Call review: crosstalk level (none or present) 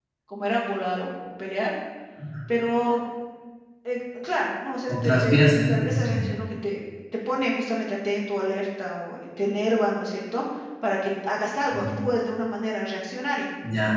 present